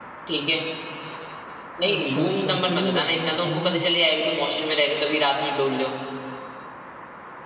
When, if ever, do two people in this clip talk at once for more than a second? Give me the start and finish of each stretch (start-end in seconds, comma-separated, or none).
1.9-3.8